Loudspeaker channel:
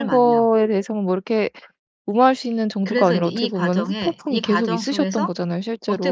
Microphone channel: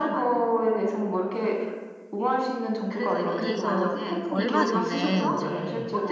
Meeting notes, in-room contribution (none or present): present